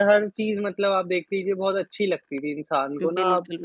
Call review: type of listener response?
listening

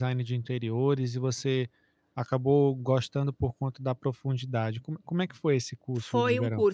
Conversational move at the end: taking over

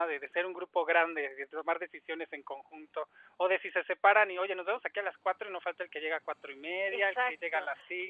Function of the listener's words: taking over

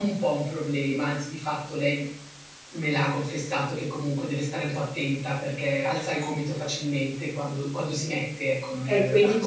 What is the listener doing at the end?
taking over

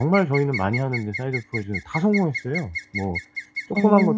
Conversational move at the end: listening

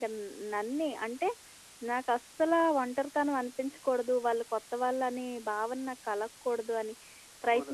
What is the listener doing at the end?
taking over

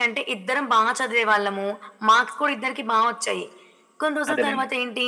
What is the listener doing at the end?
listening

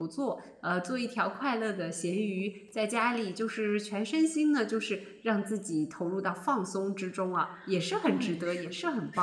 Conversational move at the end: taking over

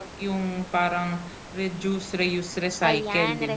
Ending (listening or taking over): taking over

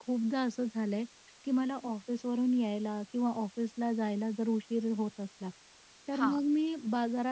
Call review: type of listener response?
listening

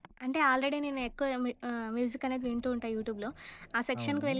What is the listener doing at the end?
listening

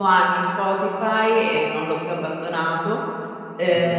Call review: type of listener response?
listening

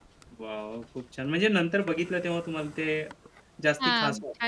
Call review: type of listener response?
taking over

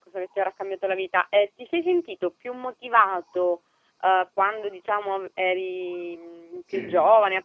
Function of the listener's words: listening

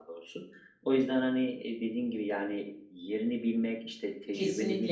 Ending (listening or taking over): listening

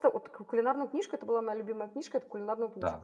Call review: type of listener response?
taking over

